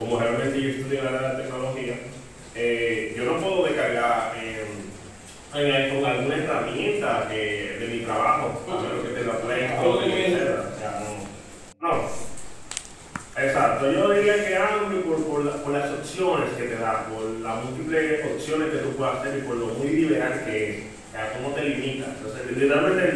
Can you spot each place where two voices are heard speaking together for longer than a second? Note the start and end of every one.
8.7-10.6

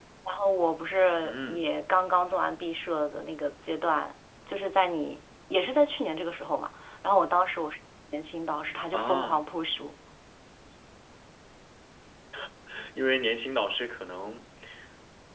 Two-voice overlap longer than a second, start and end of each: none

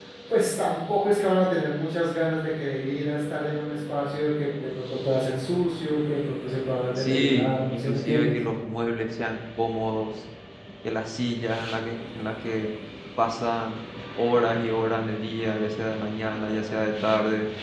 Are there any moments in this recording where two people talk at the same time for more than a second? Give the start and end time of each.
7.0-8.3

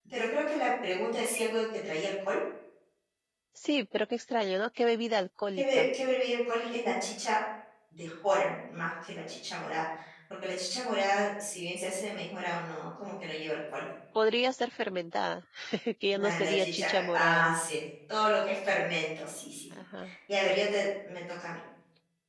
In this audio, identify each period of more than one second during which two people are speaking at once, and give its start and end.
16.1-17.5

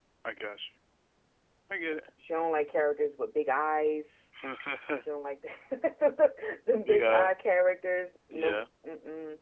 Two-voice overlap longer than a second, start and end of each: none

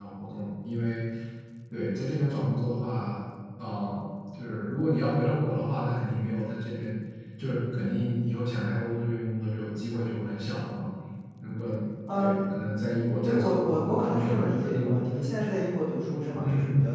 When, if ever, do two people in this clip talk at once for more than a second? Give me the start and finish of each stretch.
13.2-15.0

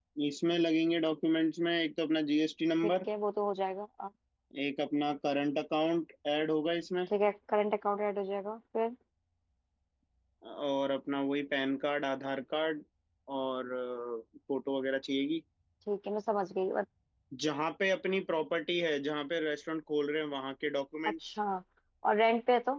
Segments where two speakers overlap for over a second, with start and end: none

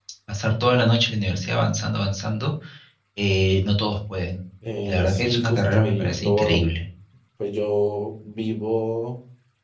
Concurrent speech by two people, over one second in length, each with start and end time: 4.8-6.6

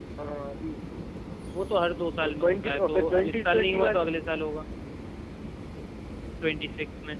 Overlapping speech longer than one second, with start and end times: 2.2-4.0

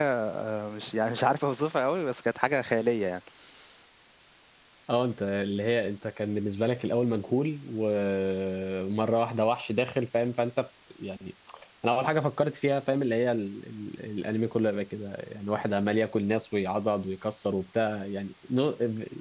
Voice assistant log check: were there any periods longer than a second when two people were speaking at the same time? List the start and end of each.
none

